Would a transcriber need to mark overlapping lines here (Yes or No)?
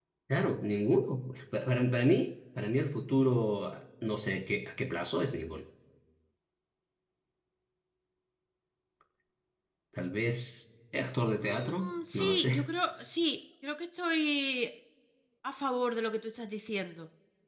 Yes